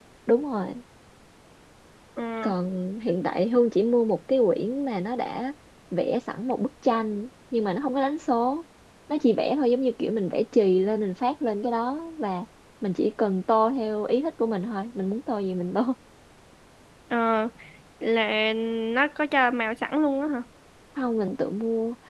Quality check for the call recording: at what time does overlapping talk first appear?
none

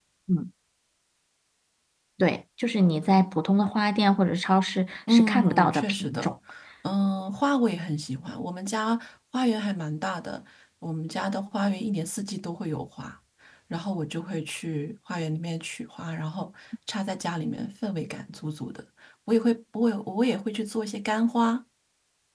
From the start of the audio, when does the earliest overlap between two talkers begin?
5.1 s

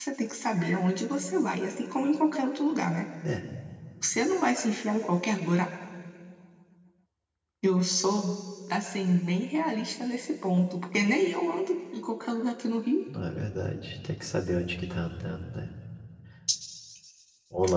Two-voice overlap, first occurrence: none

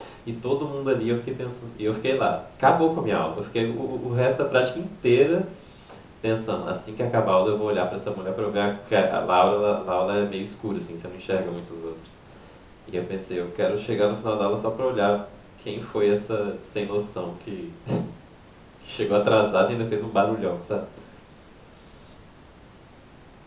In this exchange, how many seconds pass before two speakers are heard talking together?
none

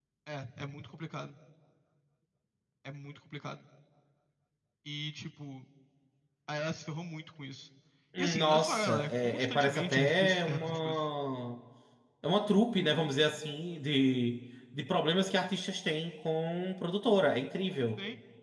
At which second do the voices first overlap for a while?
8.2 s

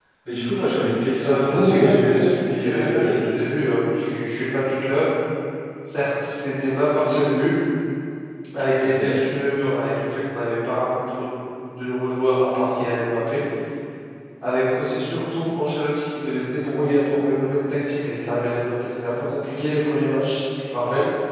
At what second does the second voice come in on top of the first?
1.2 s

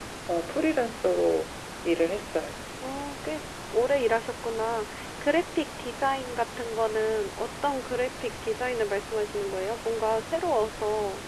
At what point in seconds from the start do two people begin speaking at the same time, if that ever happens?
none

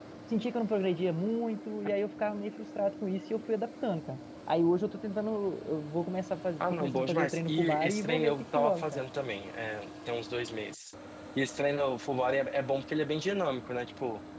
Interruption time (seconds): 6.6 s

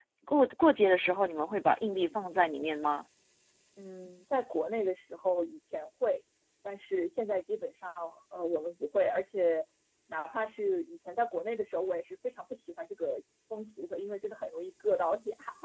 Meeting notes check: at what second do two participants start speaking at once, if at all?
none

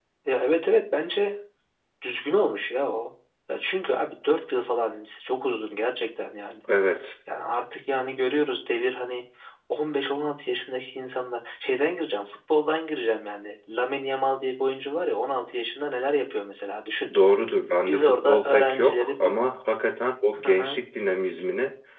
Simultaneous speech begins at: 17.9 s

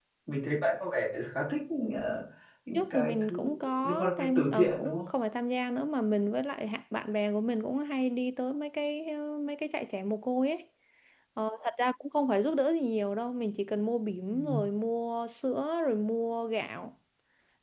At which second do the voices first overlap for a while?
2.7 s

